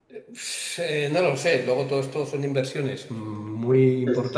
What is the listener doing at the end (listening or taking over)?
listening